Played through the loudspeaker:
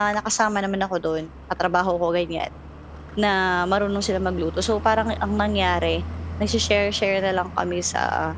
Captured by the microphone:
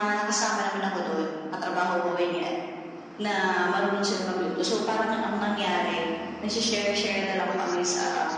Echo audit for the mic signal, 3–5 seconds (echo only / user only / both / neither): echo only